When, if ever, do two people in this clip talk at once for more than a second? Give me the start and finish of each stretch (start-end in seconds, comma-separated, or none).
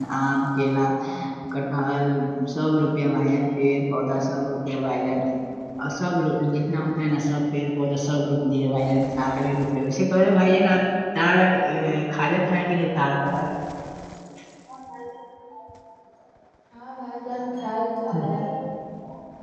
none